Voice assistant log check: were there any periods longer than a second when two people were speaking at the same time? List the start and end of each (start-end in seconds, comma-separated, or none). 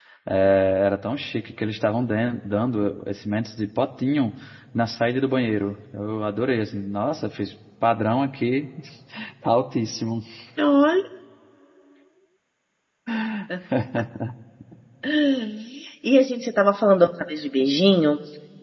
none